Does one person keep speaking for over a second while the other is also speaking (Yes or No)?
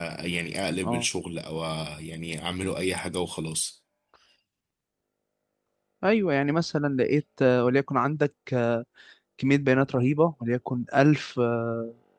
No